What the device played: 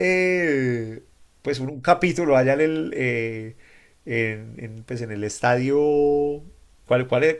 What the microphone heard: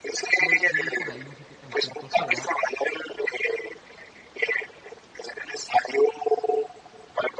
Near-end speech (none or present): present